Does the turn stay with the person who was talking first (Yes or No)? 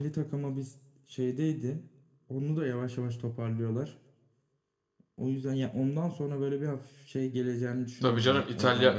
No